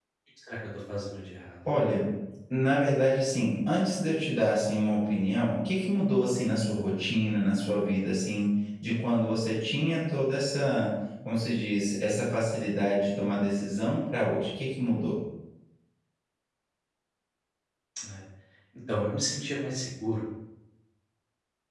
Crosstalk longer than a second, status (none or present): none